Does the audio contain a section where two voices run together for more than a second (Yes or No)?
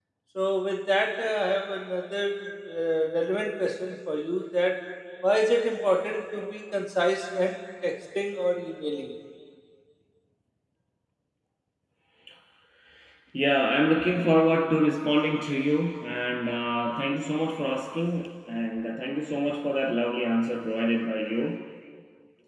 No